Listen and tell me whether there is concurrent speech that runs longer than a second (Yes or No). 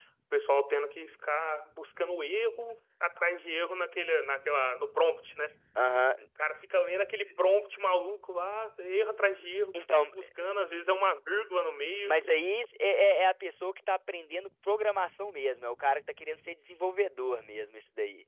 No